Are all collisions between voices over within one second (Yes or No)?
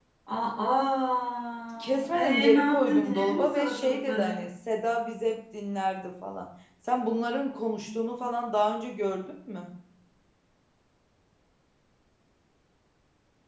No